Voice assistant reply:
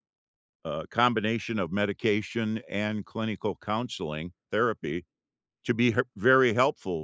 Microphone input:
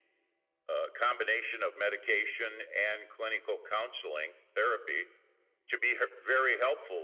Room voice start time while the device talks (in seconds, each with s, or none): none